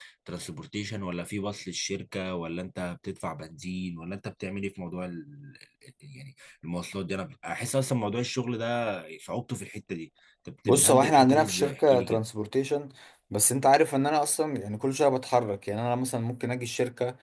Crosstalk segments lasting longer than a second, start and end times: 10.7-12.2

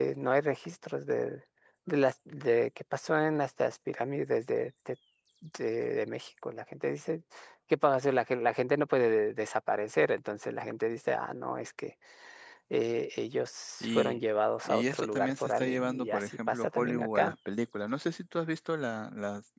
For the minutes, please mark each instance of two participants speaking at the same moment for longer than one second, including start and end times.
14.6-17.3

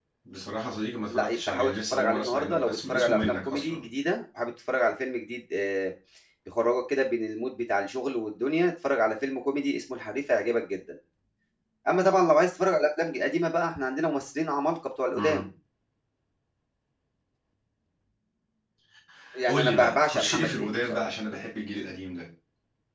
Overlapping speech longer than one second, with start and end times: 1.1-3.9, 19.5-21.0

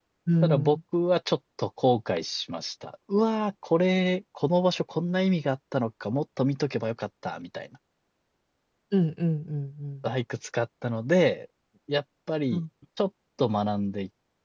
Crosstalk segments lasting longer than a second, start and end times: none

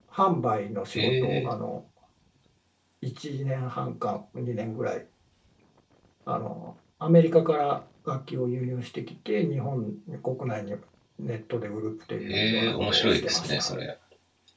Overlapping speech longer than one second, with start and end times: 12.3-13.7

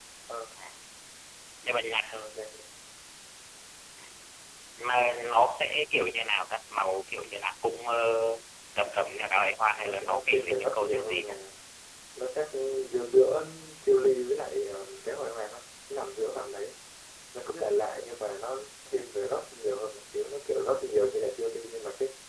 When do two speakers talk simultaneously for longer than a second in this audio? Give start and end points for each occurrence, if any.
9.7-11.3

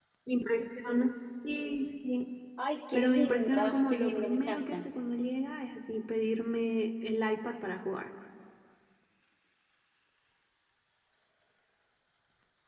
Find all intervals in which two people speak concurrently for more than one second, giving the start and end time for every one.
2.9-4.8

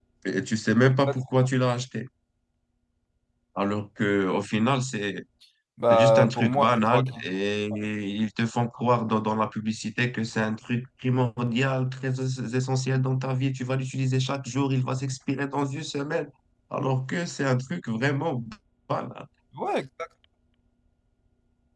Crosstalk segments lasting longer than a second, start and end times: 5.9-7.1

